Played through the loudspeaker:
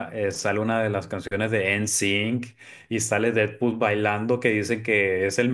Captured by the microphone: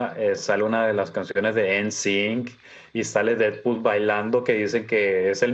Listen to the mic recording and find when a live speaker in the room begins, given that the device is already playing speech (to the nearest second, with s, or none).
none